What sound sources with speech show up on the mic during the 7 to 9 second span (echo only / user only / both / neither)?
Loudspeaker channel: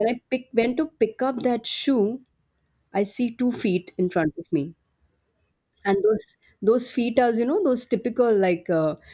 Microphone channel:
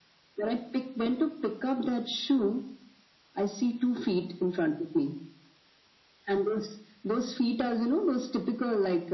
echo only